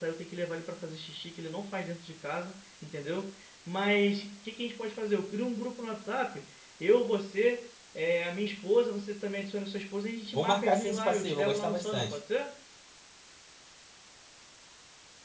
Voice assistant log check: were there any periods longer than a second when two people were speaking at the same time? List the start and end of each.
10.3-12.2

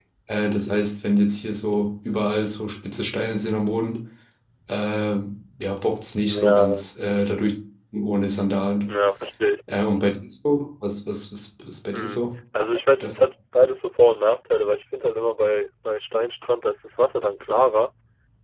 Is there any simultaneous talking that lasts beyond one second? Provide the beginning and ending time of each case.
none

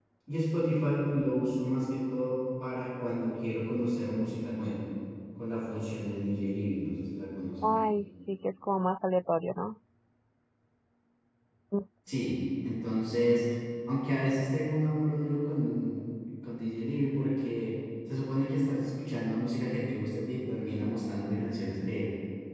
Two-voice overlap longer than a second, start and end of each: none

